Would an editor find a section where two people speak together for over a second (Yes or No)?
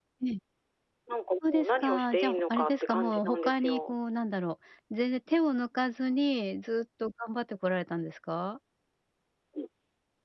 Yes